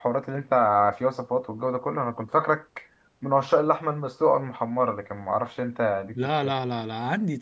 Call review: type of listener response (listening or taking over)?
taking over